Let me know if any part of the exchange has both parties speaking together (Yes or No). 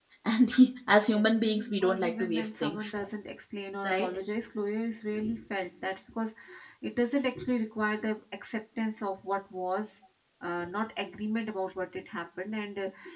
Yes